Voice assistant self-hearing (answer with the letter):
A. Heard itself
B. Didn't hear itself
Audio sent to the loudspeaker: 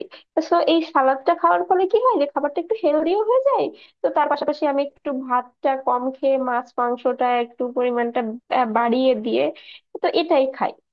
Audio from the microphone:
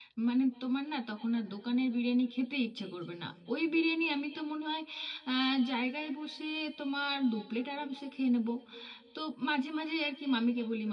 B